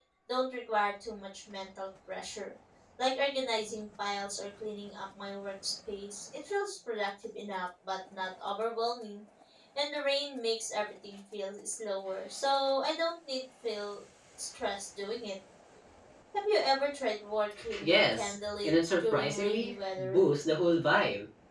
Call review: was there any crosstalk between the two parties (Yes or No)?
Yes